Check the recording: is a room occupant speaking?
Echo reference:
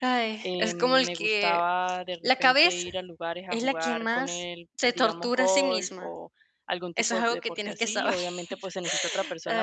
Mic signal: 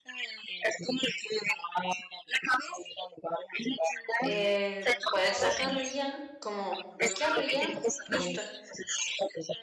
Yes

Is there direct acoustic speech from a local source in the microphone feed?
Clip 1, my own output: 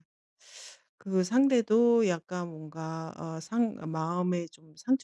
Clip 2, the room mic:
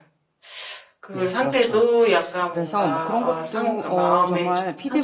Yes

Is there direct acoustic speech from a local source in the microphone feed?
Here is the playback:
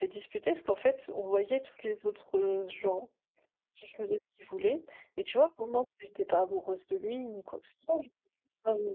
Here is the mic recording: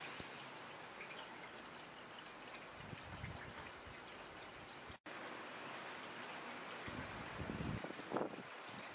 No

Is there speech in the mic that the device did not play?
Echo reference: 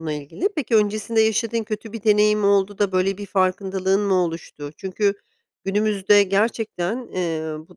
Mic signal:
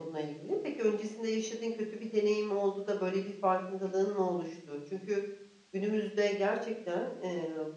No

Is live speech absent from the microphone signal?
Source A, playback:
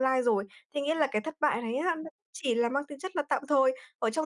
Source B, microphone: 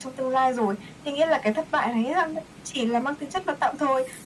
Yes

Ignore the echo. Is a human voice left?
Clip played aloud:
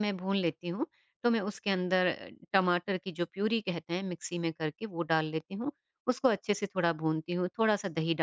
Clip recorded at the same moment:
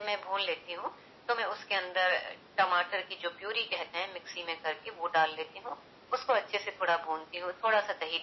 No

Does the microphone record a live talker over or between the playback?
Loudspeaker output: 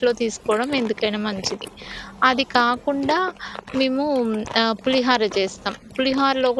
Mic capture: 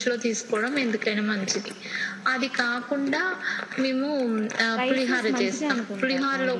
Yes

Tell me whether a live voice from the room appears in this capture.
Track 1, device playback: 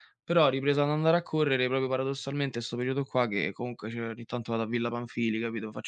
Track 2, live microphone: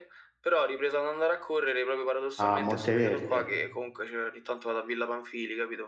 Yes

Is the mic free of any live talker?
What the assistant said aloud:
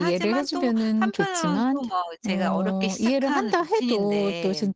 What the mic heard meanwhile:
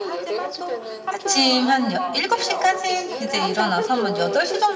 No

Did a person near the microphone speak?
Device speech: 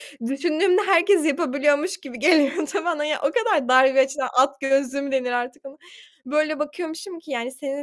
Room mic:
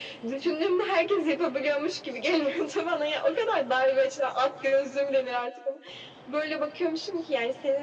No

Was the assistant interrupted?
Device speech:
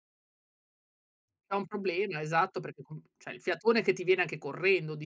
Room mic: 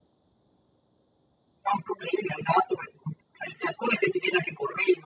No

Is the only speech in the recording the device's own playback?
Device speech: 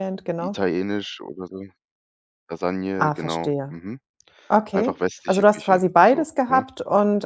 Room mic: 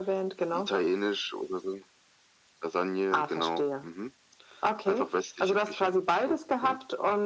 Yes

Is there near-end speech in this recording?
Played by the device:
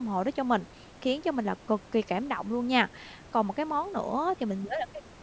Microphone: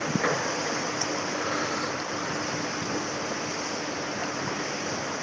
No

